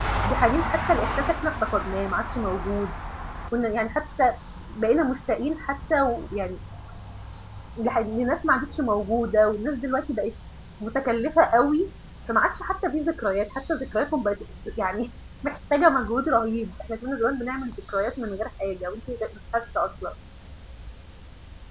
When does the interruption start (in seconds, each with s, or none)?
none